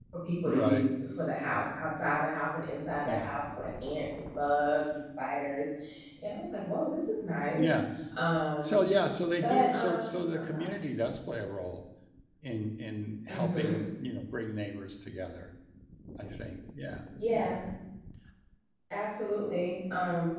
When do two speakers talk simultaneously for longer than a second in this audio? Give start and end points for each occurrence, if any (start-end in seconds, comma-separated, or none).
9.4-10.7